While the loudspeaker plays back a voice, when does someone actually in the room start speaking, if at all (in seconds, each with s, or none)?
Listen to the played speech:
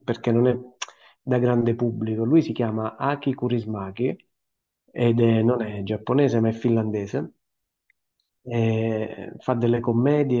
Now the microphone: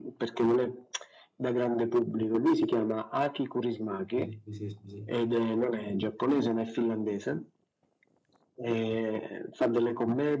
4.1 s